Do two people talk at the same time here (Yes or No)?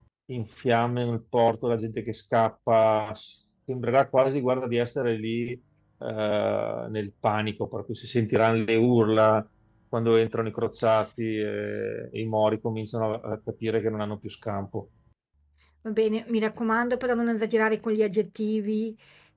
No